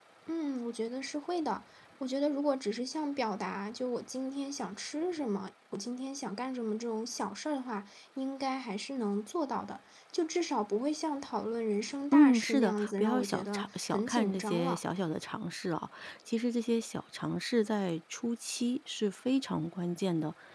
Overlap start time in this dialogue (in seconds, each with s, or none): 12.1 s